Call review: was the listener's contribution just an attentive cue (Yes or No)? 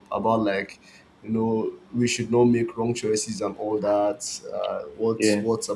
Yes